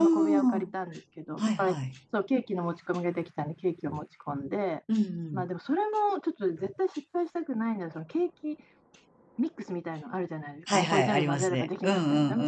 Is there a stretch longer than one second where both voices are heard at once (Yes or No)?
Yes